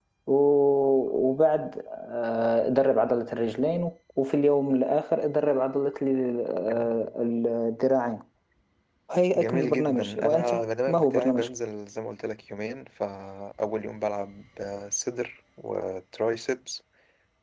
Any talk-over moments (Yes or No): Yes